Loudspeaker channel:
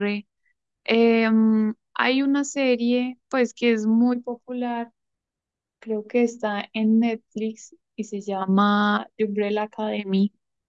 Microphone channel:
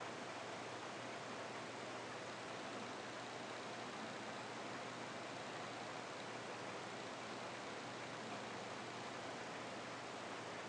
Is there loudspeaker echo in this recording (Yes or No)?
No